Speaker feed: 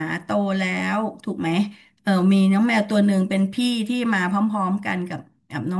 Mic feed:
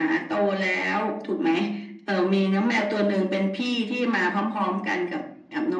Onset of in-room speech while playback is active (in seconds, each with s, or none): none